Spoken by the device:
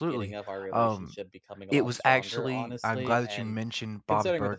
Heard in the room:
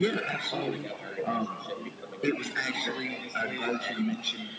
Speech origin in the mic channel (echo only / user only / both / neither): both